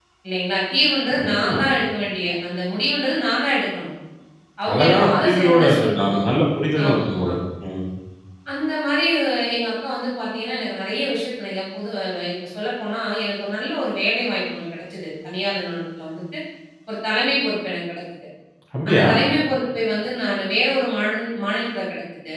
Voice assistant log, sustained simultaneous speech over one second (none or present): present